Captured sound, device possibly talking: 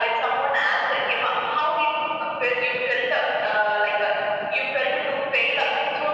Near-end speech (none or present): none